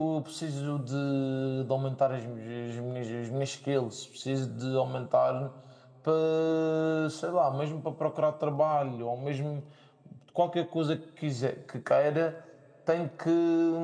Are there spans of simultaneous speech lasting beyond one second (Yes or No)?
No